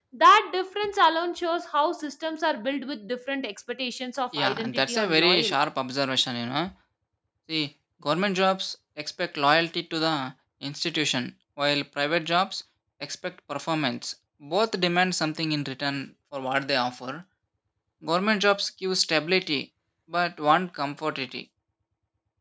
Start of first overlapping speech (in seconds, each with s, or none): 4.3 s